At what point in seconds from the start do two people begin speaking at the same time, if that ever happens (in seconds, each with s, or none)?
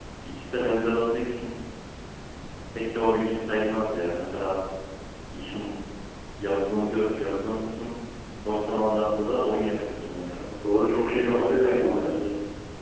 11.0 s